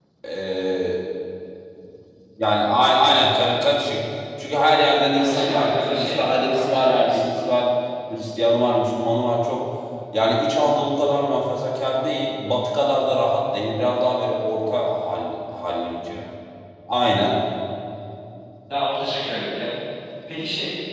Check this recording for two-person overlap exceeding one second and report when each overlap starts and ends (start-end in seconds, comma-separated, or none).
5.2-7.4